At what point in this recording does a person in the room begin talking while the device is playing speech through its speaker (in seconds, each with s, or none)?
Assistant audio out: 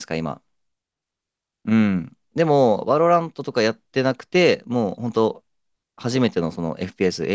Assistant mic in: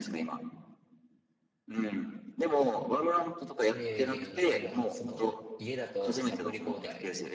3.7 s